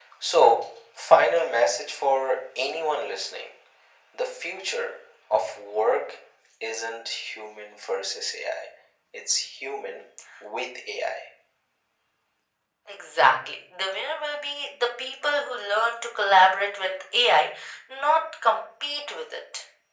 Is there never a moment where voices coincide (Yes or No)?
Yes